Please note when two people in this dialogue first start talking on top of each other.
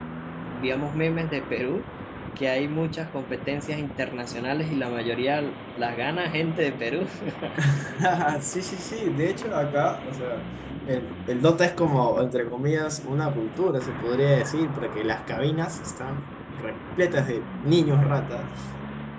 none

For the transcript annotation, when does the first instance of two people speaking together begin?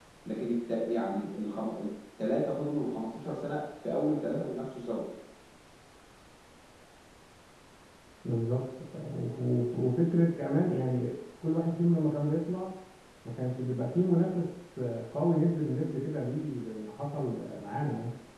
none

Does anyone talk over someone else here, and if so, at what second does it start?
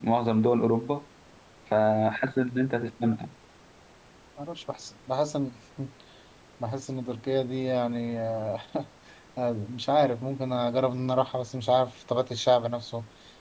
none

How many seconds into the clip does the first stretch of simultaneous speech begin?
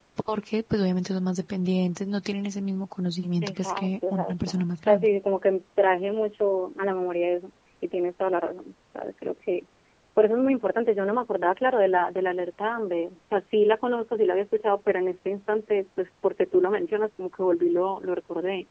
3.4 s

